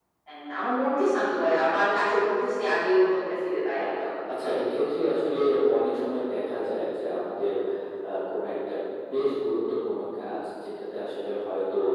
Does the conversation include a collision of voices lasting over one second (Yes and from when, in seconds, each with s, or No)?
No